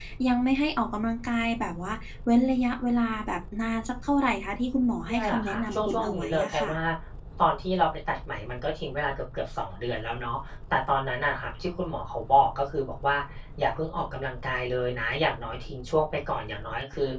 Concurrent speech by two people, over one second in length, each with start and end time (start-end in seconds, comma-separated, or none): 5.0-6.8